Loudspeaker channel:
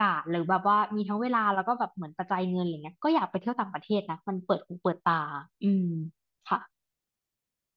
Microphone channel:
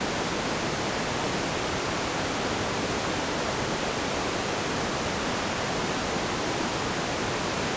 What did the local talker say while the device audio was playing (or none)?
none